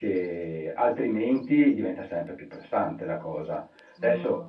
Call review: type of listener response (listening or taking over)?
taking over